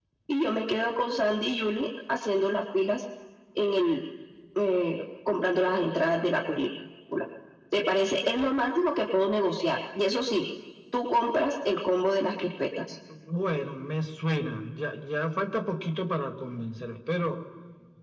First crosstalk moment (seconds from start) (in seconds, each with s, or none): none